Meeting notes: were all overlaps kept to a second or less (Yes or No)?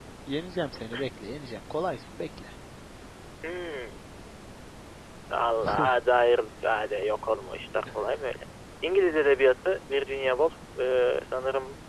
Yes